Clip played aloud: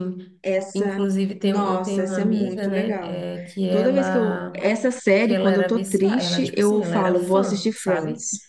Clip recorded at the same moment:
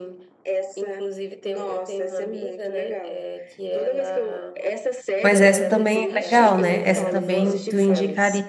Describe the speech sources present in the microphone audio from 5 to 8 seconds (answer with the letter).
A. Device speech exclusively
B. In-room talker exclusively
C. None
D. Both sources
D